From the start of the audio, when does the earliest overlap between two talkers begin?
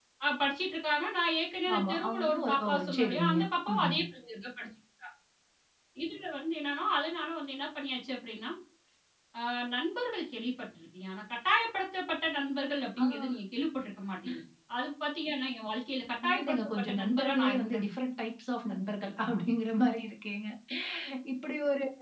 1.7 s

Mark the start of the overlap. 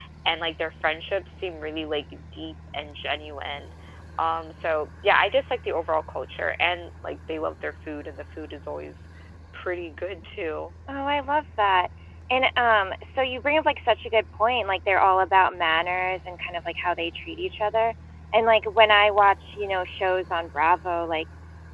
none

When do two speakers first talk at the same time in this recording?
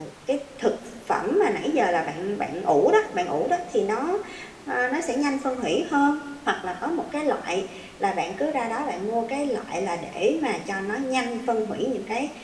none

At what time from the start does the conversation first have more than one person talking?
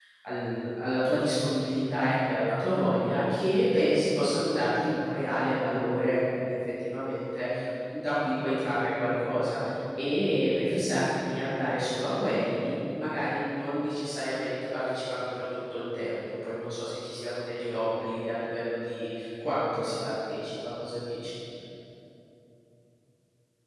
none

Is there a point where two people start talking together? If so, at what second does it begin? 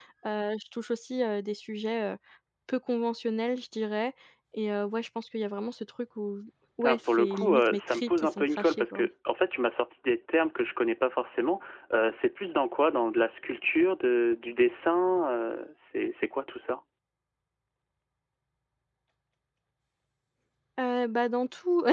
6.8 s

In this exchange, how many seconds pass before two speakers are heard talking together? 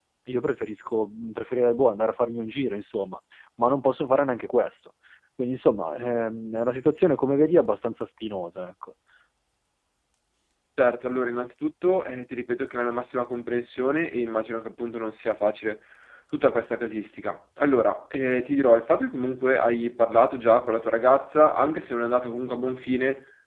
none

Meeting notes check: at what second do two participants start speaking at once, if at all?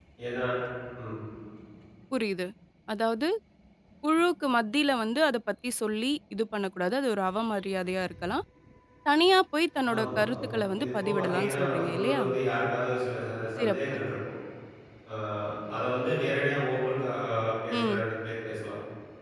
9.9 s

